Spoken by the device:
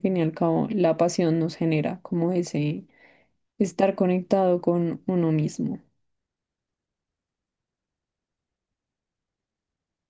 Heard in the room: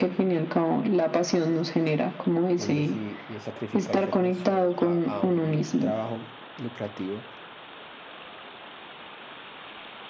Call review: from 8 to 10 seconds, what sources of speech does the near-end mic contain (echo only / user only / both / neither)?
neither